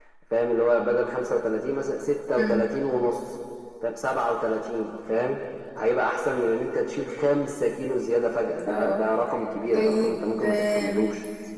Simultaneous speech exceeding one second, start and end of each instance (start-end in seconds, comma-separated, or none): 9.7-11.1